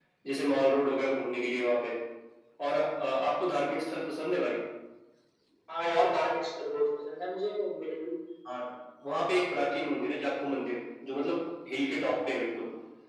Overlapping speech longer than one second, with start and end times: none

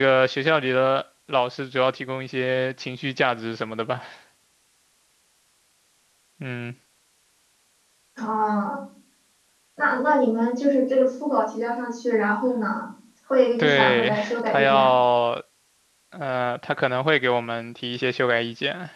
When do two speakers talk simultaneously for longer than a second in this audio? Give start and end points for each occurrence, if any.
13.6-14.9

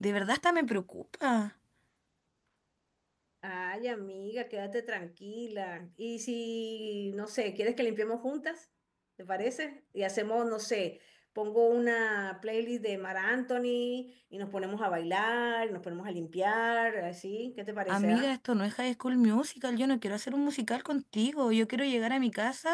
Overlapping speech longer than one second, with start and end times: none

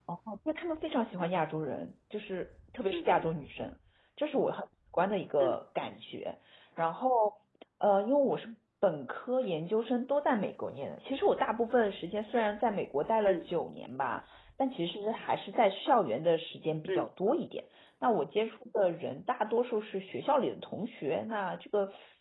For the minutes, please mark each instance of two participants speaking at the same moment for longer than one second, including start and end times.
none

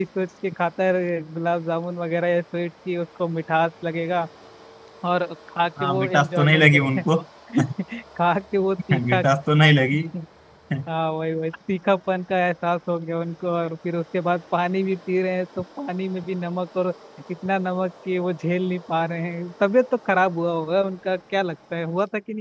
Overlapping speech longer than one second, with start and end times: 5.8-7.0

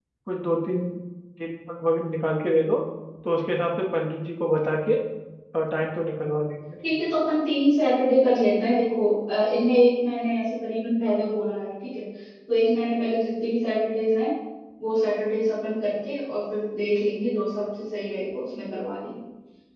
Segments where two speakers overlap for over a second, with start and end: none

